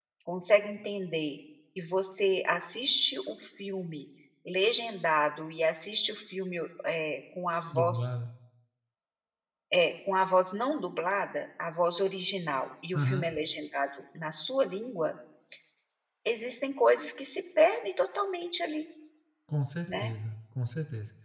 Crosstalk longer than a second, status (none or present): none